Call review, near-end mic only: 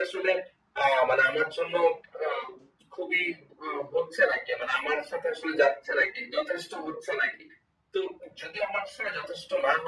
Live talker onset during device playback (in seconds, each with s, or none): none